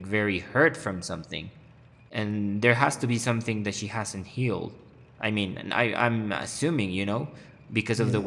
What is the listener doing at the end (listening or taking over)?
taking over